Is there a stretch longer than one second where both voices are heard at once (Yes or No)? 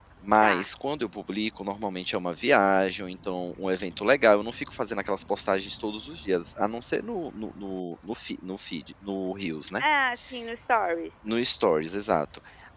No